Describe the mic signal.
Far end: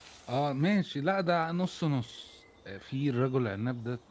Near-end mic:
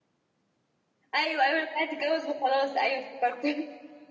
user only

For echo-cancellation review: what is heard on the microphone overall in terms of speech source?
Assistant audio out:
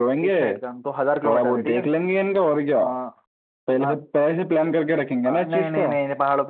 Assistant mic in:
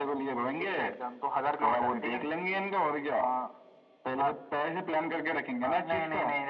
echo only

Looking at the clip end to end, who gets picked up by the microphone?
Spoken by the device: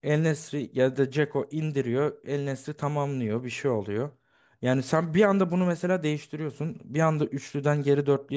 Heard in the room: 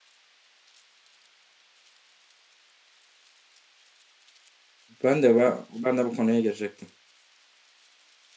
user only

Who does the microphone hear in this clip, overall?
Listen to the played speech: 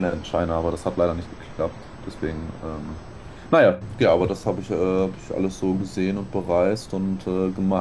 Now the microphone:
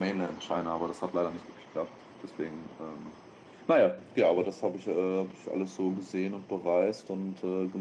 echo only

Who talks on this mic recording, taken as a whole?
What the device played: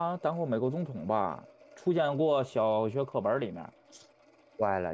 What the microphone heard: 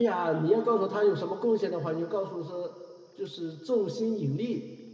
user only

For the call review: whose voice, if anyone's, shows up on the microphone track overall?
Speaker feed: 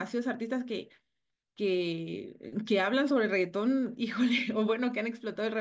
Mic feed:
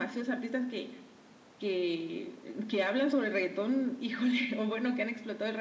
echo only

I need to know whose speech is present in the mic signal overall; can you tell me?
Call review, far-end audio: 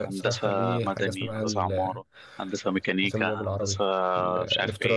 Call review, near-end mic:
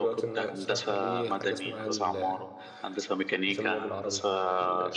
echo only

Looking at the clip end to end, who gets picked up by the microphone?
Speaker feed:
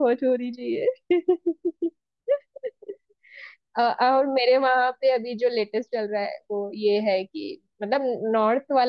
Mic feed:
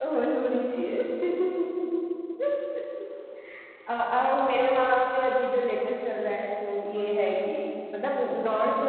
echo only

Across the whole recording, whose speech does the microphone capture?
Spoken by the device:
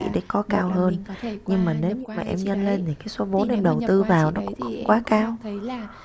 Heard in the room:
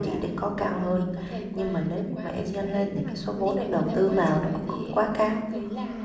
both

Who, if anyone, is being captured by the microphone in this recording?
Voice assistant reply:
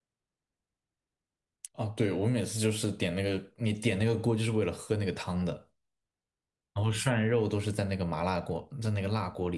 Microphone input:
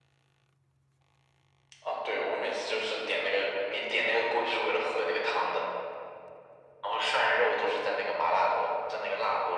echo only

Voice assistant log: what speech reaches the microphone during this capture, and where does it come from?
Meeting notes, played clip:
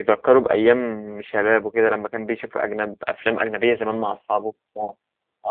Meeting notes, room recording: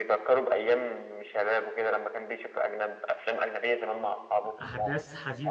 both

